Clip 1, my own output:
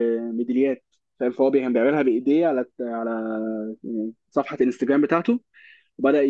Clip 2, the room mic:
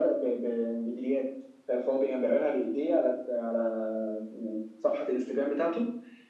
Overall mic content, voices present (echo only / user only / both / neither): echo only